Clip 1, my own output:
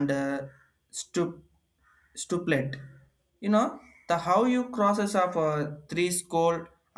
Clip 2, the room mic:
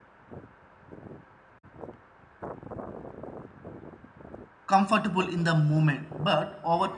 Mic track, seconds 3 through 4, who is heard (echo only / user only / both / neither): neither